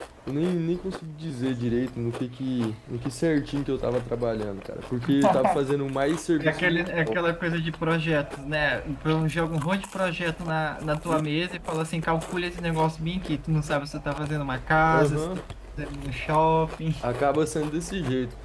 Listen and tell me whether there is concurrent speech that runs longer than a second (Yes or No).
No